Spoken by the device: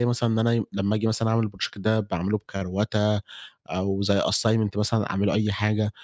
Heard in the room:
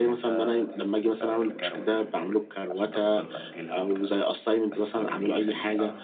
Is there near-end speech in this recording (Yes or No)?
Yes